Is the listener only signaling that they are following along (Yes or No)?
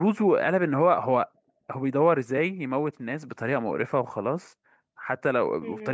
Yes